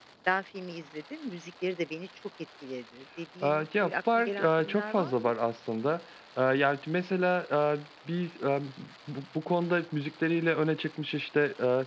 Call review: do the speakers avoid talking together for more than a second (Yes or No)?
No